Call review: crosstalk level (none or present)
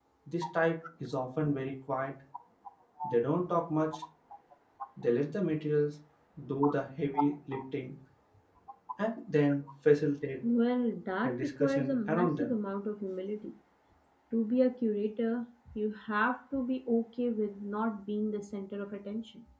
present